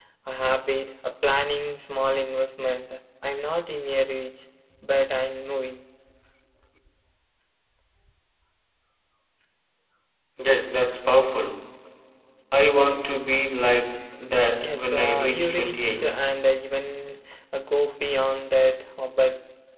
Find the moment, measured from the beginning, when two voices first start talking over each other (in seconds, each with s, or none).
14.6 s